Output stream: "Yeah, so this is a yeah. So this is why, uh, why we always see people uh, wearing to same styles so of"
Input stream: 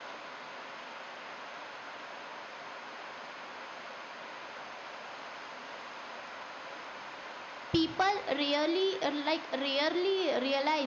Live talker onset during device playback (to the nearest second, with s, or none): 8 s